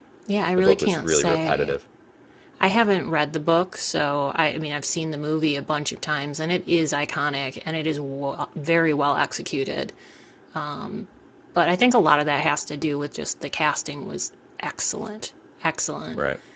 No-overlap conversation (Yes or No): No